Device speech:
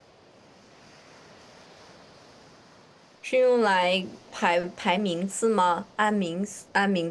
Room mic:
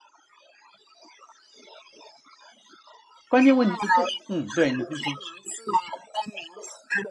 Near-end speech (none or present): present